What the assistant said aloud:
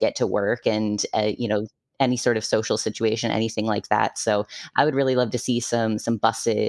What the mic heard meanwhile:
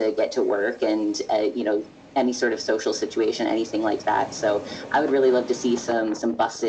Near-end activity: none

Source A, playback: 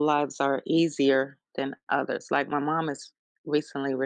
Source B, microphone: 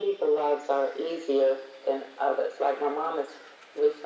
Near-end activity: none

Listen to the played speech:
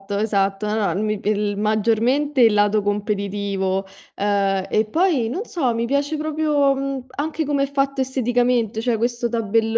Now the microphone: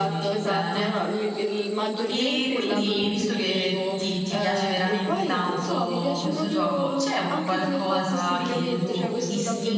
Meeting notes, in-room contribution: present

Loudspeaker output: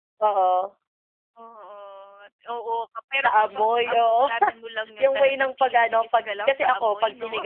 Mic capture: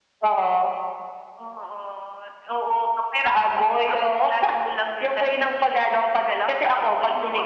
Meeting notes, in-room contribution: none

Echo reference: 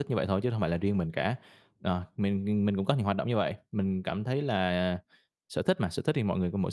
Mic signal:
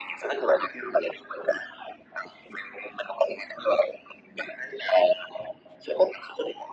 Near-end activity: none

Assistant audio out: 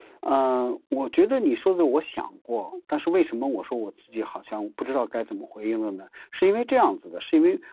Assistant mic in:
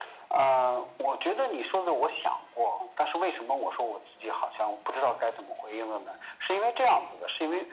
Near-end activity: none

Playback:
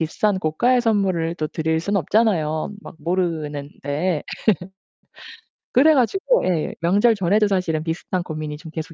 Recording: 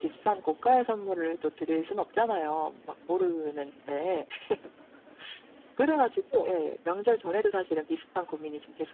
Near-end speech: none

